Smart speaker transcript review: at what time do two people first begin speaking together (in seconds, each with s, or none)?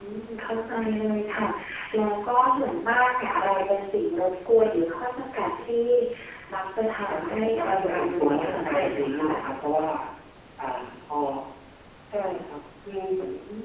7.1 s